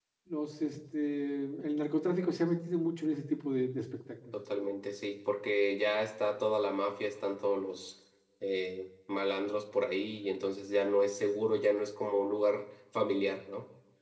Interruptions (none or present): none